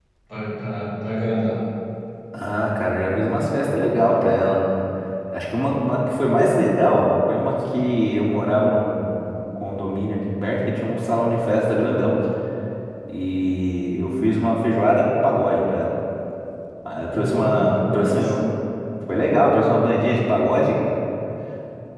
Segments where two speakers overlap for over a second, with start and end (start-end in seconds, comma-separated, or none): 17.1-18.4